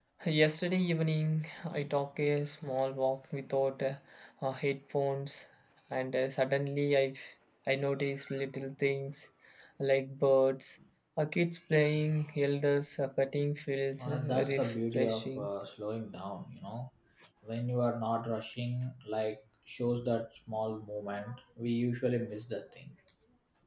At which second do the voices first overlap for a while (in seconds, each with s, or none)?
14.0 s